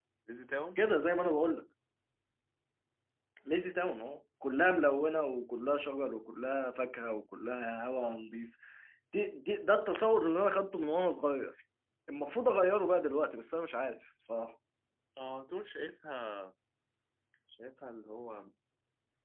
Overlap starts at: none

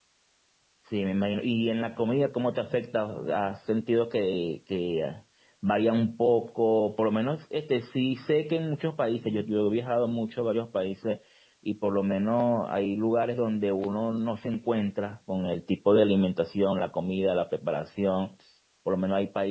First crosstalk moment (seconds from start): none

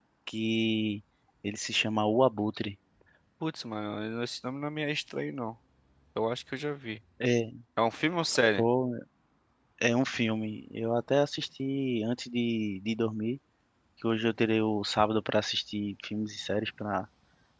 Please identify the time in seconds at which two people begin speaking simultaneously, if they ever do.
none

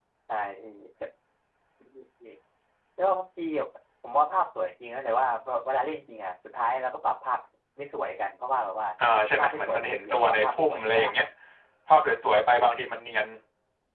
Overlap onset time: 9 s

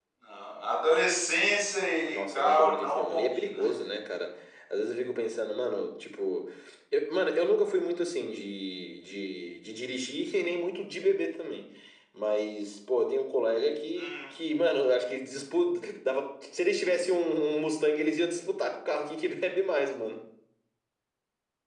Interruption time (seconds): 2 s

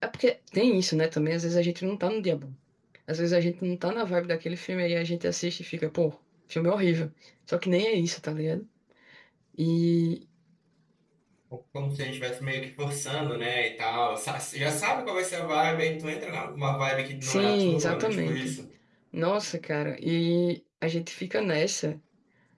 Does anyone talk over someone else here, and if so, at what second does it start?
17 s

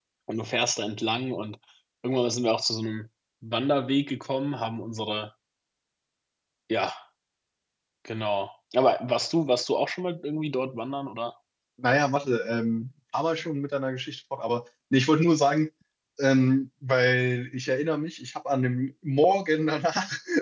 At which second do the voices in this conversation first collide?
none

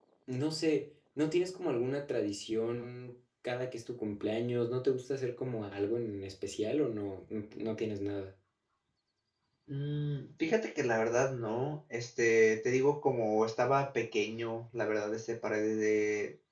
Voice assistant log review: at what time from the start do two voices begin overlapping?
none

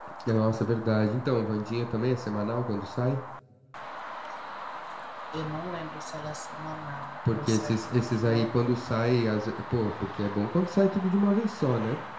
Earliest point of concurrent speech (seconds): 7 s

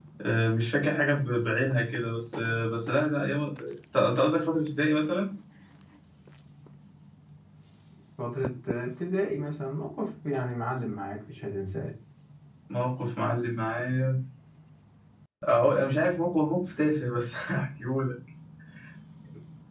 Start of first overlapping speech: none

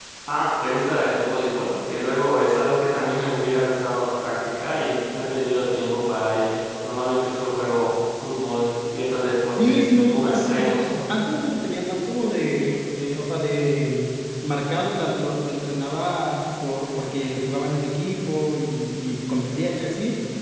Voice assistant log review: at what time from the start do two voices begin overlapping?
9 s

